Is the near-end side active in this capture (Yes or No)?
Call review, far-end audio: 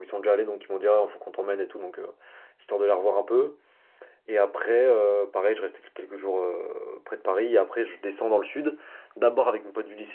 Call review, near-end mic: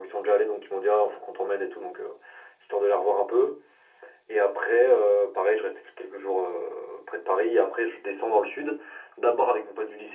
No